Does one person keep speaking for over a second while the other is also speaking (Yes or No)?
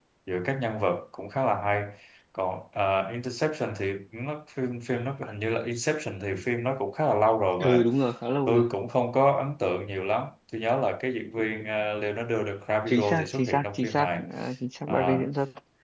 Yes